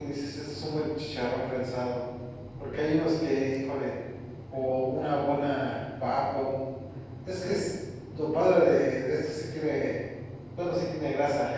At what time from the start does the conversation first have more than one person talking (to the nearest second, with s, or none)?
none